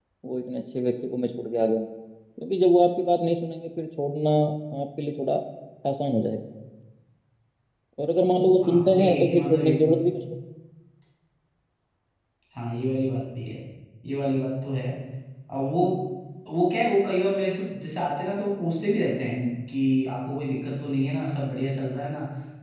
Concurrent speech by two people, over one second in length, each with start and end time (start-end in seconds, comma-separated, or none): 8.6-10.0